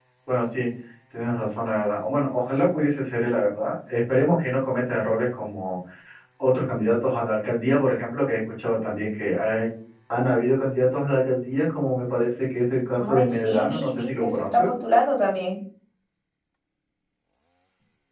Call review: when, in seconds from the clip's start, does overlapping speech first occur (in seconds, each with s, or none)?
13.0 s